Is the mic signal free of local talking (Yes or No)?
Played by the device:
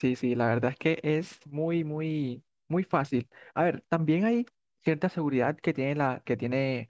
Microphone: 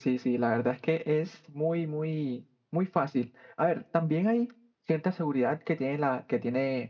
Yes